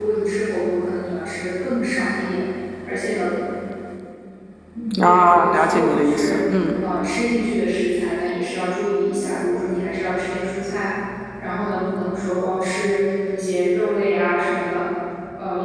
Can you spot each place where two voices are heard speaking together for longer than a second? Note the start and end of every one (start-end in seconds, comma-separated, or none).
5.0-6.4